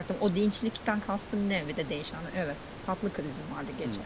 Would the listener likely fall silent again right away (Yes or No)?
No